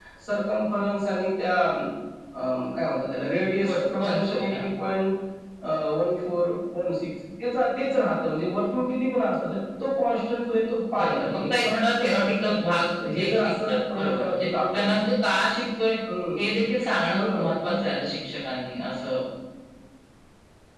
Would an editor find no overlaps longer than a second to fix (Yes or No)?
No